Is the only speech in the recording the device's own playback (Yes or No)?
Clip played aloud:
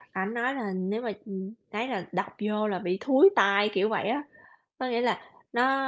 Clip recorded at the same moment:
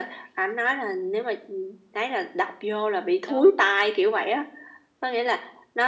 No